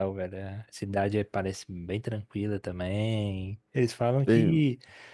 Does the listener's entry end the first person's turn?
No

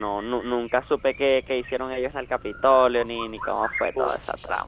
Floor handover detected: Yes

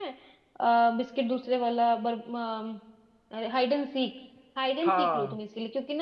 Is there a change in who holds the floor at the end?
No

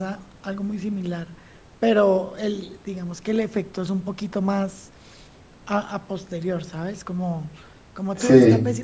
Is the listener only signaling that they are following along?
Yes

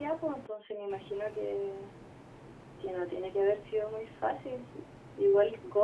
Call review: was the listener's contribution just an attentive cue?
Yes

